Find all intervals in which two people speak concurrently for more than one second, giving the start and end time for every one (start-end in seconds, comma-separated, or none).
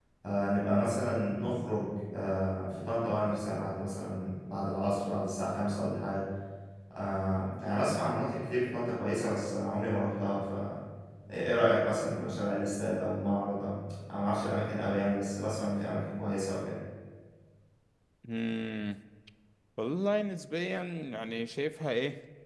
none